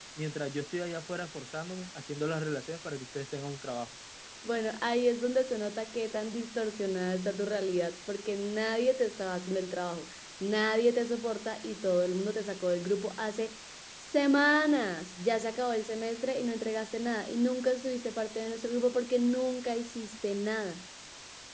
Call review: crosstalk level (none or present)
none